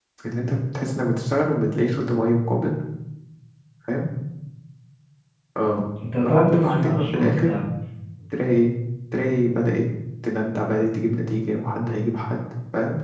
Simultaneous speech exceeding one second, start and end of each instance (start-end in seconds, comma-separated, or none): 6.2-7.5